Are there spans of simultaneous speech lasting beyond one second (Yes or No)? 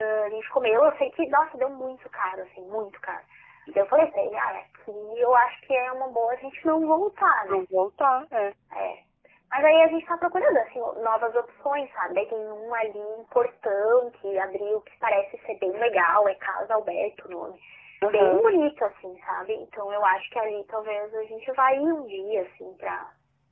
No